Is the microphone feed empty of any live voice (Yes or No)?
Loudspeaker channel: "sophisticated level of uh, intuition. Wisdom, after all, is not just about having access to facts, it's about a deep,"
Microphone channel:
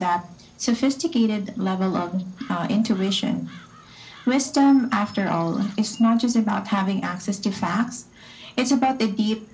Yes